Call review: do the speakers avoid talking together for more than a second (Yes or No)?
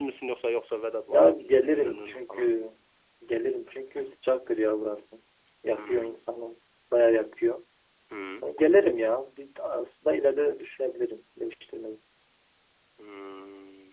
No